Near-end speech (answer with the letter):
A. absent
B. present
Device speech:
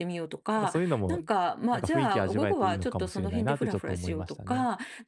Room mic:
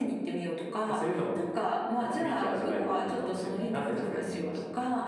A